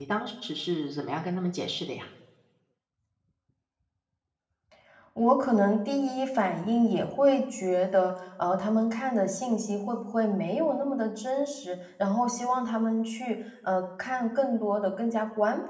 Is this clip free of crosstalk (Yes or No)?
Yes